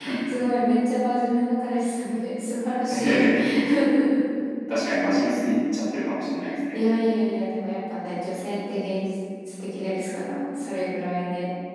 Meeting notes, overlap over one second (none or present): none